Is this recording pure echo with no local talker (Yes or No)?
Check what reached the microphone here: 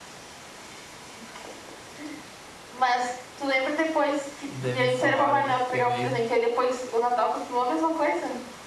No